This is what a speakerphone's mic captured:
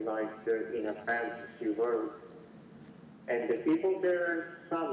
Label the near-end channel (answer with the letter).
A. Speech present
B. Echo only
B